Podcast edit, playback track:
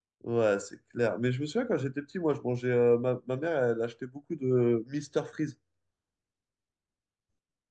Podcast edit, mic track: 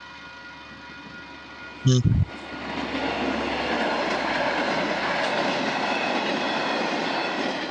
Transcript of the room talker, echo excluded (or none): Mm.